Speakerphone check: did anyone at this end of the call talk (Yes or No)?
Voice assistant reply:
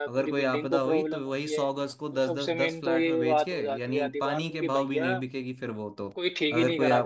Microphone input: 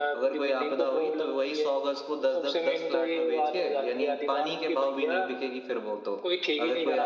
No